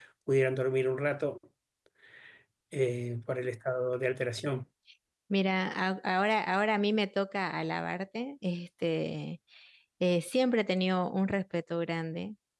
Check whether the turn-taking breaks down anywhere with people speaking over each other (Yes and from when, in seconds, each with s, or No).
No